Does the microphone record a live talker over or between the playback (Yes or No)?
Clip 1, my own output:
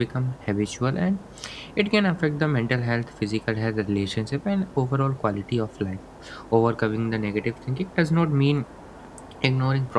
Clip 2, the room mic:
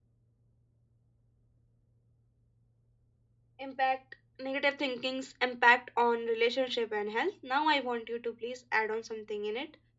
Yes